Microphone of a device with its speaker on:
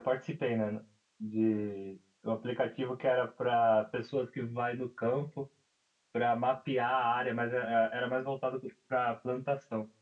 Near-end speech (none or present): present